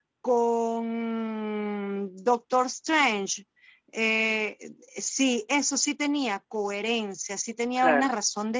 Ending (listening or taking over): listening